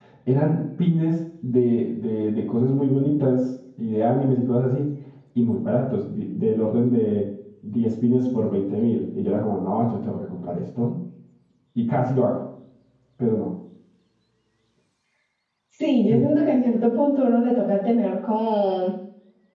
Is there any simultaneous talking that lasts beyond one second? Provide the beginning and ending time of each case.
none

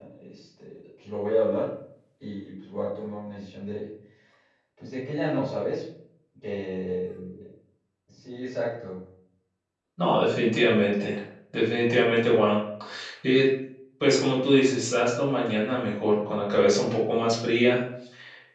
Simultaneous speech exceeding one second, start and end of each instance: none

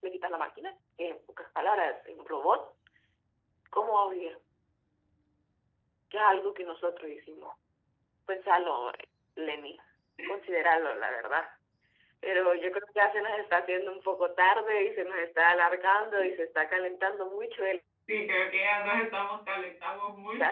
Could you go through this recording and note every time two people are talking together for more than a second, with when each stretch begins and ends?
none

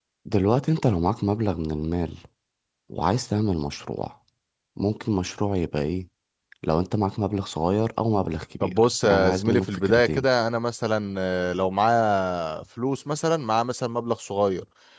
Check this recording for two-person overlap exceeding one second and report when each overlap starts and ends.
8.6-10.2

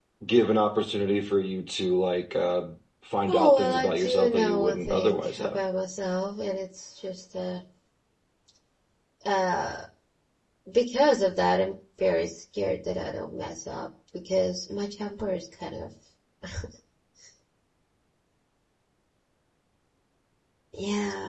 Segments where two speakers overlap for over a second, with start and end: 3.3-5.6

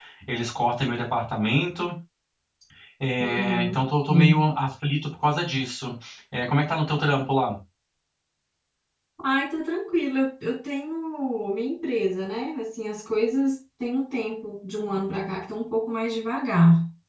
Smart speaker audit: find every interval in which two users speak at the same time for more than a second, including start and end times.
3.2-4.5

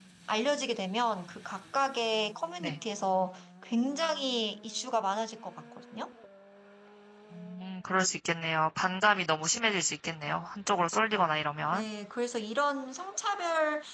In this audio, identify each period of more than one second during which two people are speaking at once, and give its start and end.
none

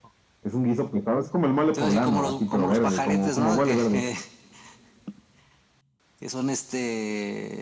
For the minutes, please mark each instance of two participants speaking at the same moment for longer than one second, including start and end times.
1.7-4.0

